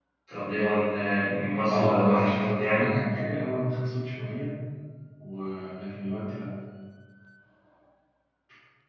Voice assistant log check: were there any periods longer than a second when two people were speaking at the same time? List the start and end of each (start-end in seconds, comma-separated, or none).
1.7-3.0